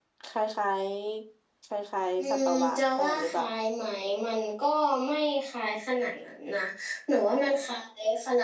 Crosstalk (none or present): present